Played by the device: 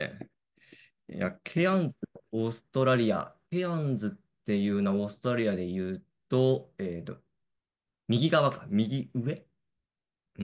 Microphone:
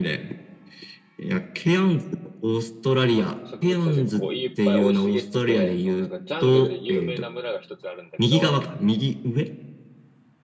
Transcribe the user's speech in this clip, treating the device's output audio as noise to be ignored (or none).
植物たちがこう、いっぱい生い茂ってて、そのなんか、ジャングルで有名な村が一つあるんだけど、